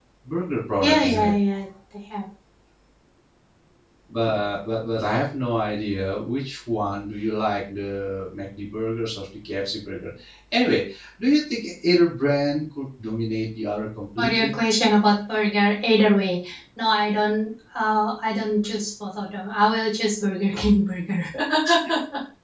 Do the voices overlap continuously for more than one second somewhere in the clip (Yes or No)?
No